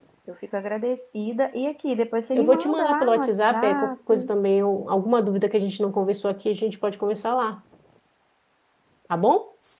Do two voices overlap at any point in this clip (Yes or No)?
Yes